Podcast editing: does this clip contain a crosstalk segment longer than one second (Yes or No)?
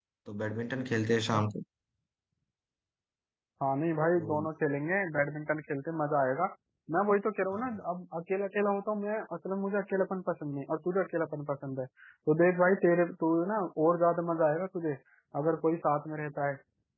No